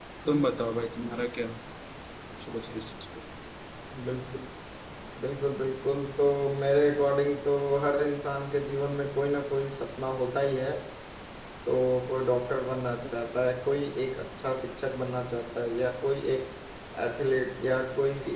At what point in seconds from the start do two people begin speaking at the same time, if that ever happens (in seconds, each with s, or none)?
none